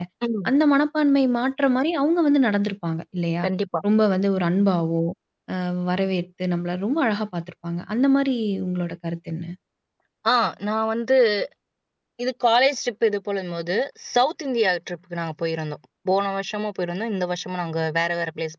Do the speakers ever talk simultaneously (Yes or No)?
No